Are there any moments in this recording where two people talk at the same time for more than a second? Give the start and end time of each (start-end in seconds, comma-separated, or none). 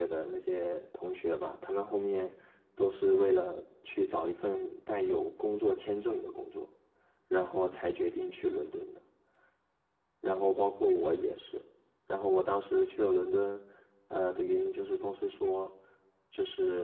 none